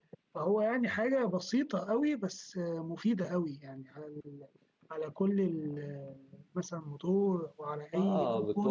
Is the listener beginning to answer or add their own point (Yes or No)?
Yes